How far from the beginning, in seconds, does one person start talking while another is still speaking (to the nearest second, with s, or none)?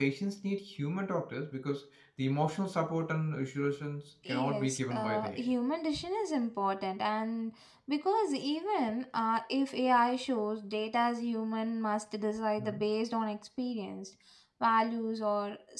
4 s